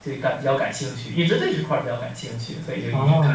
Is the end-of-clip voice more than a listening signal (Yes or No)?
Yes